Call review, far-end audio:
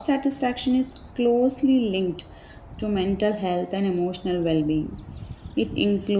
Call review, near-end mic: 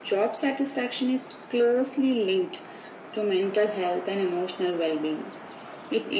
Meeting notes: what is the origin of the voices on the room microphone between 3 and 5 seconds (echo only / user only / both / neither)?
echo only